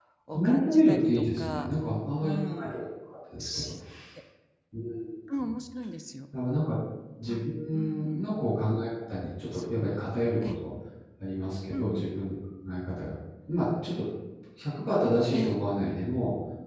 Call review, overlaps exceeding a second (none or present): present